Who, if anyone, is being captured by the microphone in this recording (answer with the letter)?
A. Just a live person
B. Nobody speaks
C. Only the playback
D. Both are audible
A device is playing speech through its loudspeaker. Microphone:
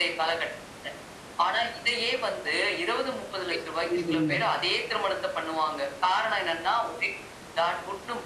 D